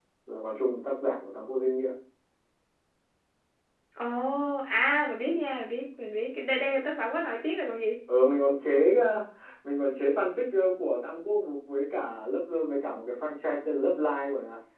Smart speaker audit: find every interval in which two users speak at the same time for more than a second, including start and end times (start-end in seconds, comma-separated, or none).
none